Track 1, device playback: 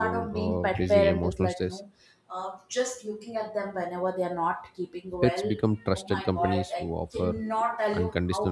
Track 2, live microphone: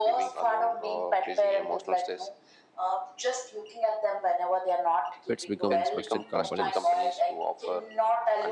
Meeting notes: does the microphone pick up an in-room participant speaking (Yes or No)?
Yes